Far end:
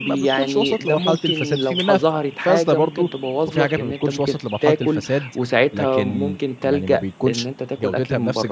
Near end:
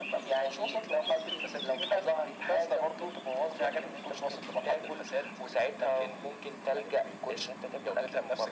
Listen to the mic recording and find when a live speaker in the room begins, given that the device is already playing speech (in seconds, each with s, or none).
none